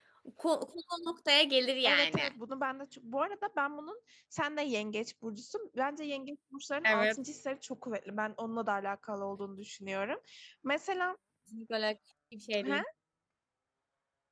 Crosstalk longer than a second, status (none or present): none